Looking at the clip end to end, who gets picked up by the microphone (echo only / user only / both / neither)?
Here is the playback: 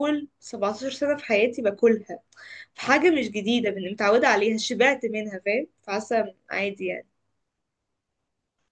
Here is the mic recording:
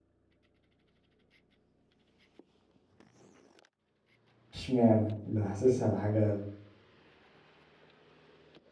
user only